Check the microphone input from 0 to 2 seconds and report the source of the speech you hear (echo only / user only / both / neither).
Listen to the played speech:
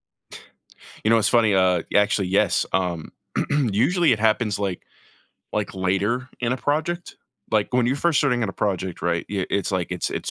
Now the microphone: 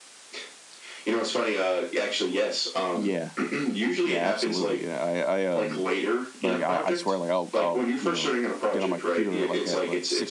echo only